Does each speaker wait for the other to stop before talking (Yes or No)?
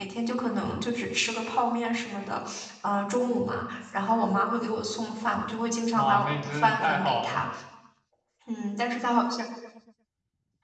No